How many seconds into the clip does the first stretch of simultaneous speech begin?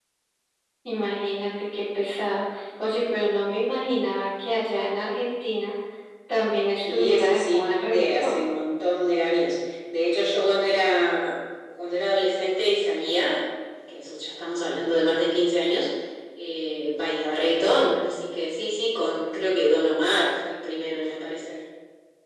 6.9 s

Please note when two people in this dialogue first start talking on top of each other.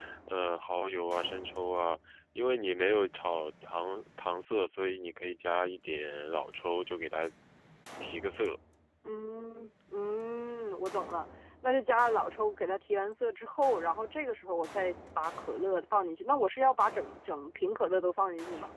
none

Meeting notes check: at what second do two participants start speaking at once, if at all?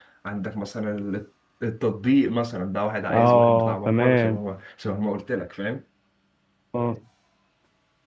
3.1 s

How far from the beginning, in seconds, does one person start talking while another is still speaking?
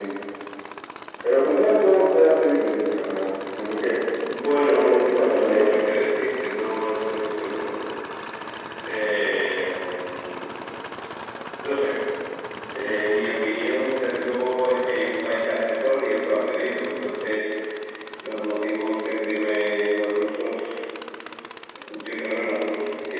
4.6 s

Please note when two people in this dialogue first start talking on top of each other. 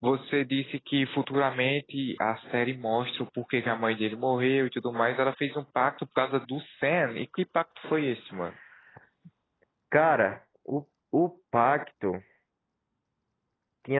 none

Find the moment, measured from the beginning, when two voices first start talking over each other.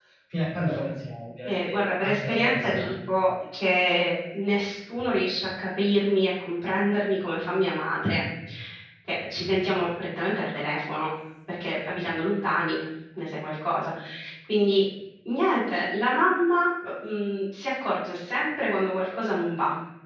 1.4 s

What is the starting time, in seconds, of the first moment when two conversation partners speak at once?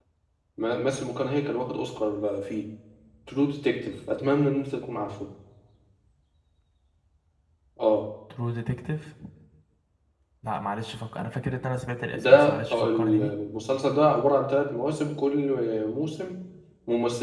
12.1 s

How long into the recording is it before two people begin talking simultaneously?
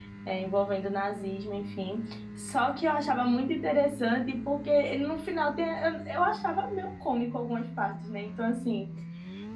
none

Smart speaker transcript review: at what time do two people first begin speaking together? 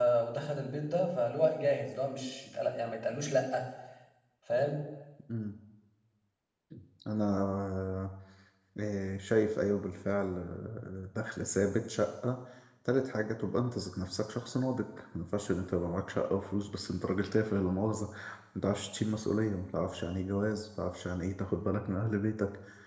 none

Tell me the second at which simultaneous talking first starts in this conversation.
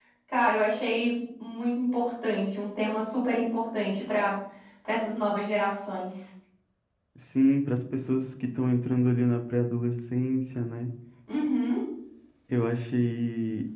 none

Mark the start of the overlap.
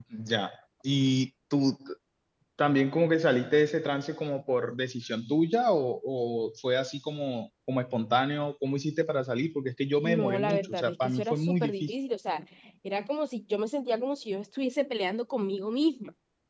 10.0 s

